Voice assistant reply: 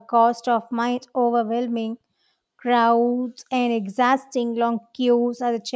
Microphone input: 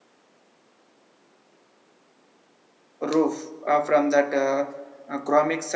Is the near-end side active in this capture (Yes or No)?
Yes